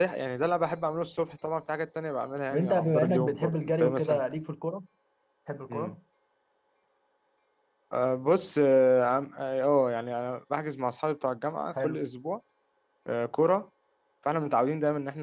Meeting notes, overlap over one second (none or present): present